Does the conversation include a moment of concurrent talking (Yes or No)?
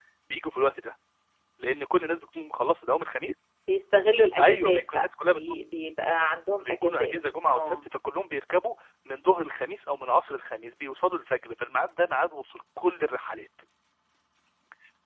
Yes